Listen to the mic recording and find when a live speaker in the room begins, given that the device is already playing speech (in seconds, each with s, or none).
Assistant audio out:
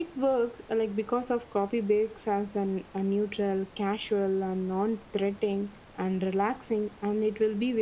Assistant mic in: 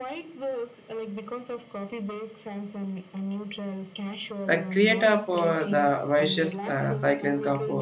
4.4 s